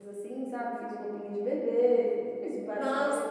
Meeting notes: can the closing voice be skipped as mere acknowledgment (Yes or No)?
No